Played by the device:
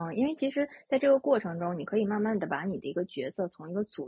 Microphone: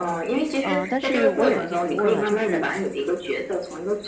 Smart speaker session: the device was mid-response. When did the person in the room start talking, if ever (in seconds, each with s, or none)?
0.6 s